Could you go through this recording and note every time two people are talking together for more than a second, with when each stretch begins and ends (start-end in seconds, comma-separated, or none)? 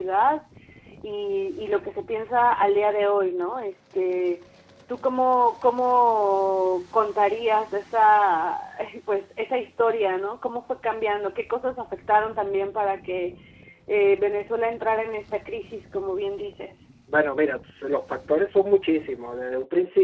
none